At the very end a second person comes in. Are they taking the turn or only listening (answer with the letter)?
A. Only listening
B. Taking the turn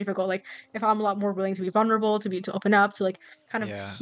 A